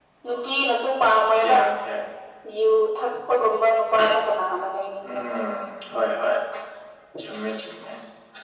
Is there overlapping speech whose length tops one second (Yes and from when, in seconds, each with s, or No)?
No